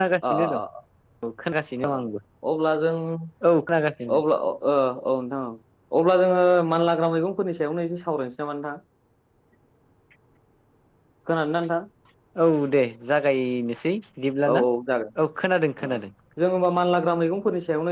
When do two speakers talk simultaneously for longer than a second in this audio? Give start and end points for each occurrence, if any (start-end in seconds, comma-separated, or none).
none